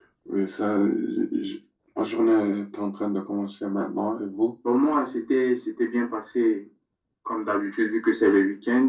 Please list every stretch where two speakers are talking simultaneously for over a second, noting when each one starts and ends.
none

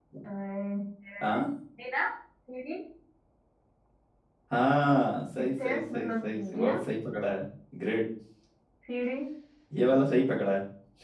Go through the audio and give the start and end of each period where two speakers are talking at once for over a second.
5.4-6.8

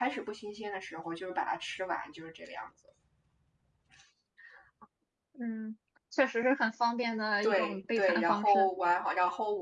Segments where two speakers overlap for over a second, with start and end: 7.4-8.7

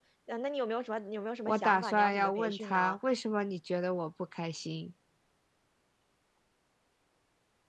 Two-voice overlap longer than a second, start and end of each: 1.5-3.0

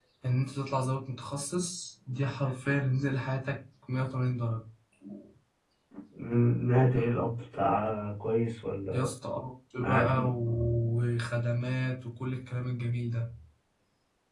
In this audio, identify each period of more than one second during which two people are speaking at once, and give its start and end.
none

